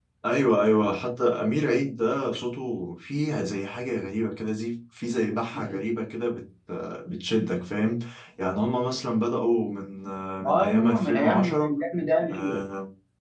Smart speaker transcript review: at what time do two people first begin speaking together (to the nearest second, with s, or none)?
10 s